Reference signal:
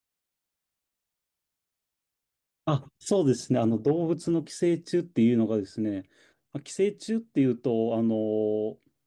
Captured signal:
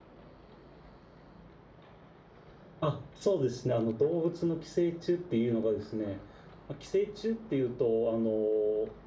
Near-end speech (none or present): none